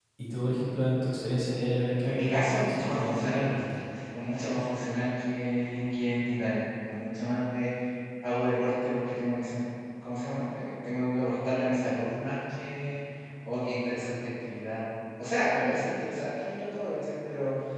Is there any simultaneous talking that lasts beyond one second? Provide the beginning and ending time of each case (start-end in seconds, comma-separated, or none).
2.0-3.5